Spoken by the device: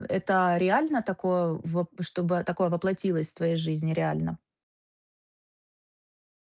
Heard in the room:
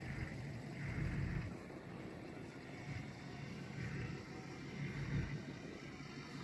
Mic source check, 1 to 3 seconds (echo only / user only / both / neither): neither